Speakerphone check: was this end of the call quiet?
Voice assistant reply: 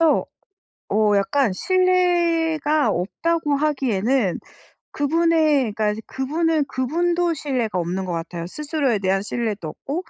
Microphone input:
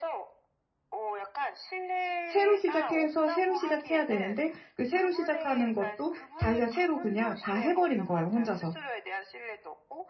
No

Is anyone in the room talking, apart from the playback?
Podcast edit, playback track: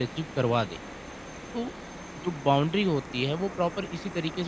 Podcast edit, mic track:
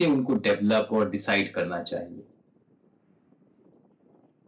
Yes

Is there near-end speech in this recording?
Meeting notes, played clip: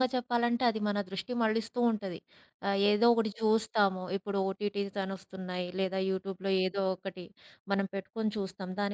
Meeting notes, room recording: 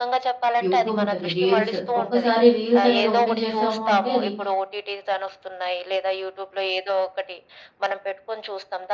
Yes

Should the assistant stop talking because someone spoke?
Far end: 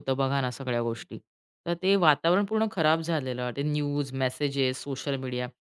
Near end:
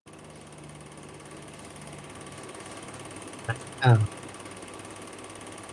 Yes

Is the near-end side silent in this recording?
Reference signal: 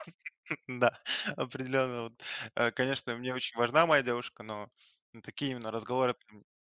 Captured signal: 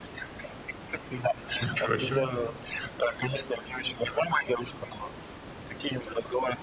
No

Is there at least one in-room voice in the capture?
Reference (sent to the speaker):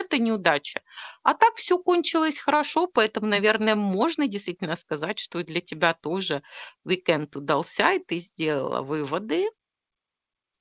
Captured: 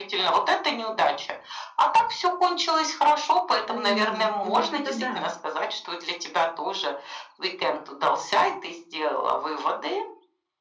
Yes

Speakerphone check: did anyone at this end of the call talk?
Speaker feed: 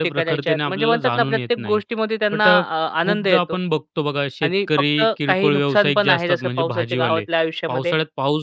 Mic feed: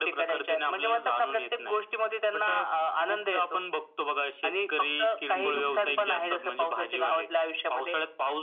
Yes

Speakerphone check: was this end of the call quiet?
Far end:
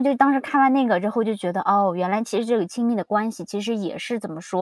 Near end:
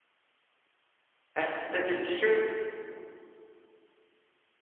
No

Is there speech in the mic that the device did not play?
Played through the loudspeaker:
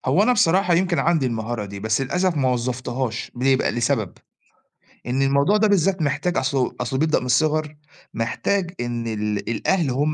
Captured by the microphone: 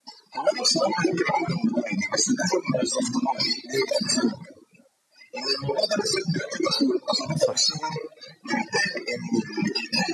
Yes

